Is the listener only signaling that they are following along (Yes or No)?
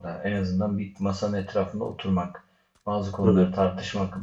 Yes